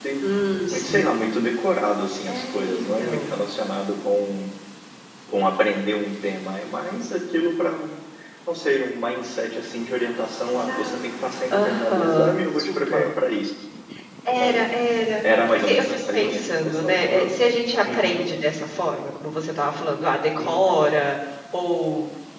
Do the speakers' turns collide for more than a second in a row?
Yes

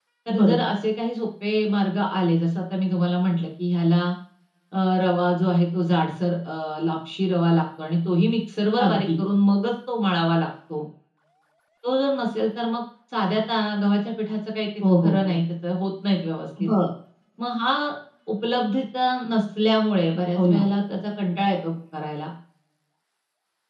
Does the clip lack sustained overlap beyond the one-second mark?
Yes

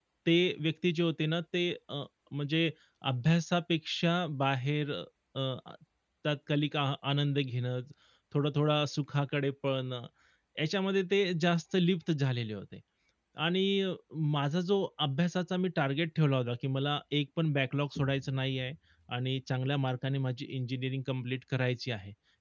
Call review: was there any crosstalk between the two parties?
No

